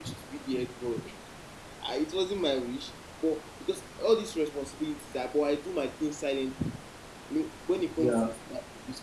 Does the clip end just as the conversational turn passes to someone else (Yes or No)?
No